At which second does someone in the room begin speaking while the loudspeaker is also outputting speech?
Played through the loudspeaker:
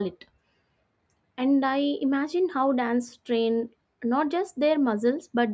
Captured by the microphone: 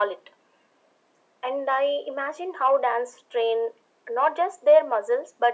none

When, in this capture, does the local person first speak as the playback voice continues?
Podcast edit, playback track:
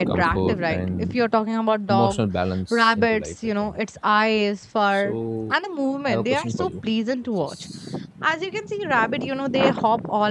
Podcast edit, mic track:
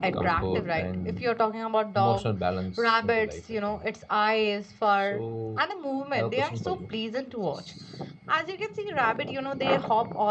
none

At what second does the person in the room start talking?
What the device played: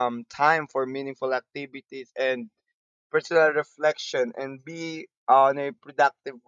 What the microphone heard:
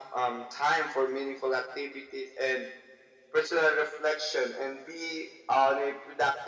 none

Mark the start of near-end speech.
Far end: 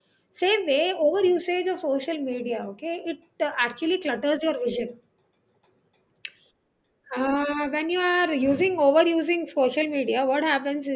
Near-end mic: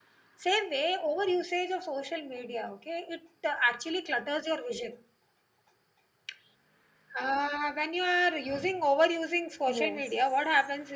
9.6 s

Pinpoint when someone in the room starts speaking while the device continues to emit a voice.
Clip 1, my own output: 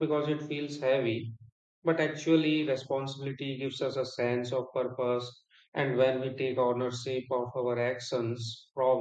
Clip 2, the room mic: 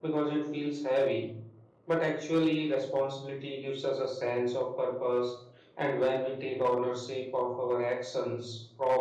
none

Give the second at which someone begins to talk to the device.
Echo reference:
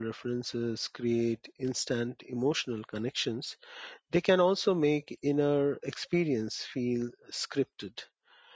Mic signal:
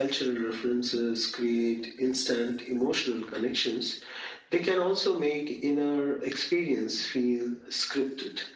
none

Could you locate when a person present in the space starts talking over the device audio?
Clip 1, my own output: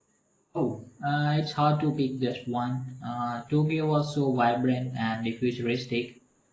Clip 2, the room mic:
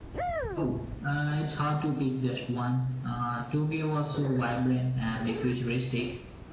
none

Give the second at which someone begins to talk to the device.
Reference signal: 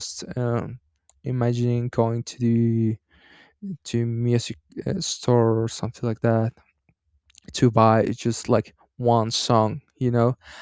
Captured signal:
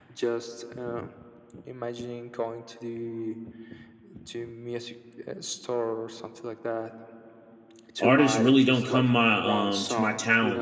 8.0 s

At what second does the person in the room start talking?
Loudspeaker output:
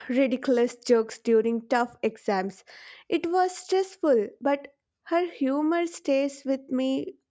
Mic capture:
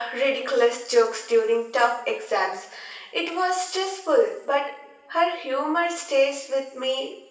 none

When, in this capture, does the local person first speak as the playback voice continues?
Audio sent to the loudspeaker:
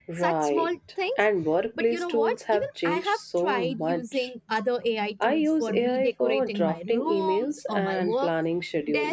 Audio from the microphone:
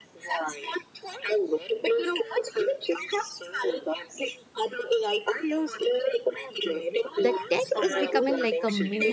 7.2 s

